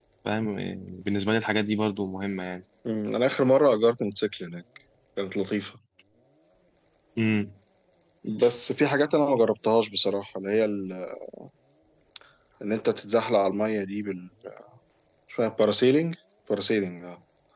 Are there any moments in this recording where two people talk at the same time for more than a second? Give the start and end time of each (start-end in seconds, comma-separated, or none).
none